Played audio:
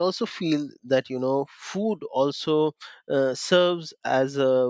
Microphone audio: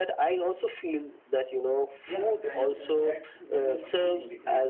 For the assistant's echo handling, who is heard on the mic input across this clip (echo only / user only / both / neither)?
both